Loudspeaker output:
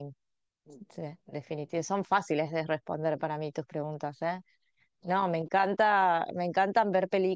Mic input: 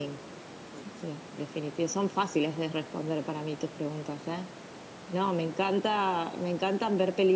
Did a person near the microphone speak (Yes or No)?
No